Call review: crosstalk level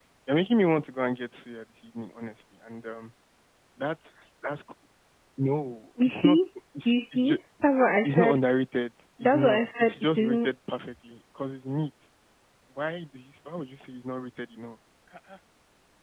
present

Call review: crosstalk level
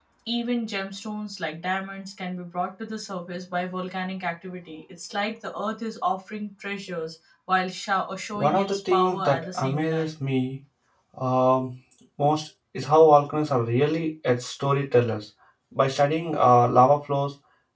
present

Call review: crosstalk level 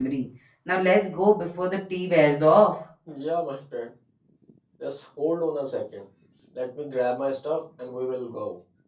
none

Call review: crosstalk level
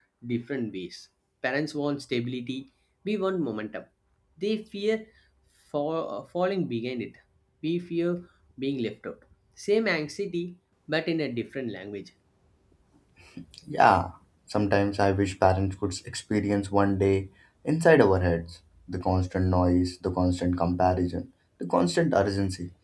none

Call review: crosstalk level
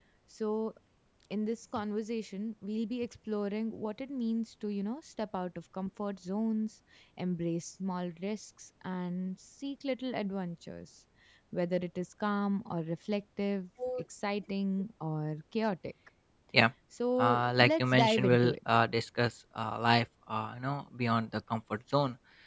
present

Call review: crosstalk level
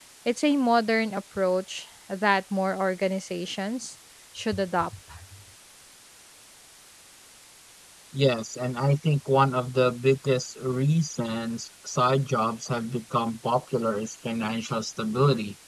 none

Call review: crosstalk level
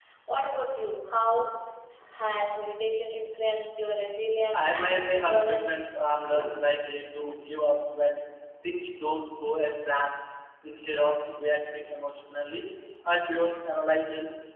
present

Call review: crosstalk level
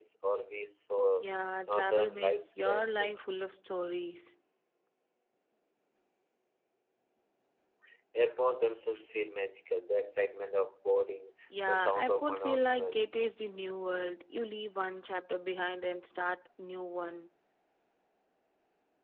present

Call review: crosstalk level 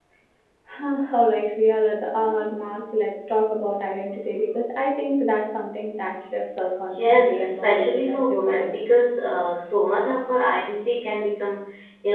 present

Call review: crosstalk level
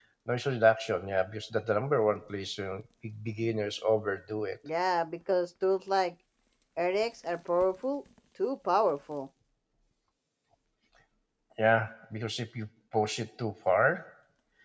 none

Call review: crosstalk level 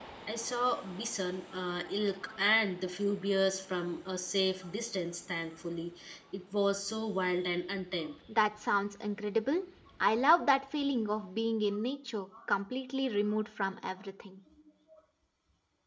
none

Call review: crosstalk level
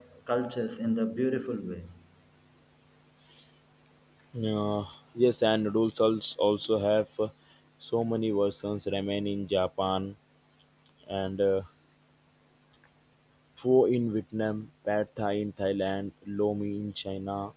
none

